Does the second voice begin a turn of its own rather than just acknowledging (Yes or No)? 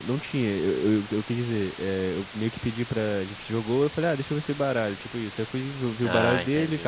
No